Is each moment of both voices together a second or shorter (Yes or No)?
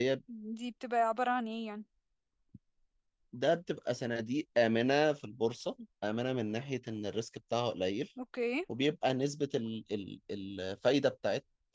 Yes